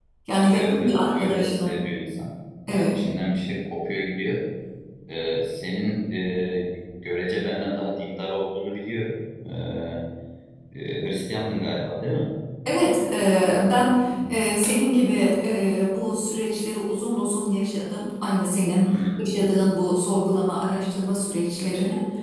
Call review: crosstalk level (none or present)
present